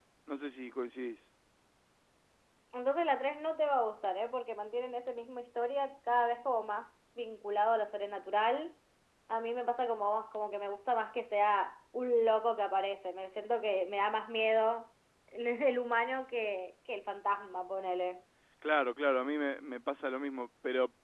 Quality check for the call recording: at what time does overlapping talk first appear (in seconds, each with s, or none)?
none